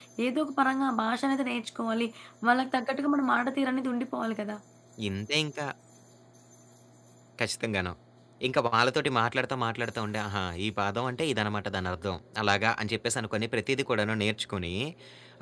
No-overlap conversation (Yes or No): Yes